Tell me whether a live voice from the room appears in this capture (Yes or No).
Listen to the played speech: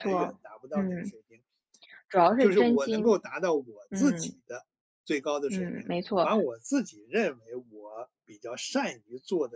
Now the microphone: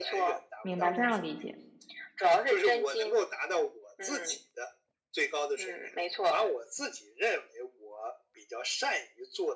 Yes